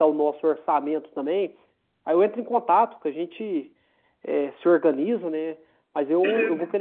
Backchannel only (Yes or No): Yes